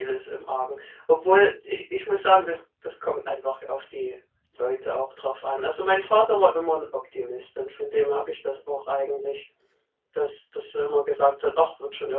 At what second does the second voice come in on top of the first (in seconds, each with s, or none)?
none